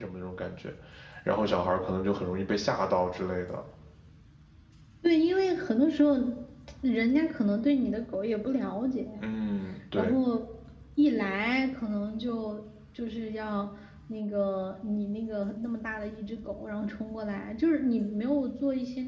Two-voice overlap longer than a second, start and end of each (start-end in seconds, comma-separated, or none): none